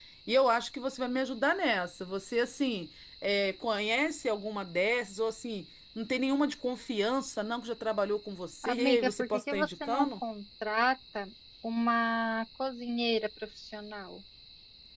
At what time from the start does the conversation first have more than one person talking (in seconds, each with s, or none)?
8.6 s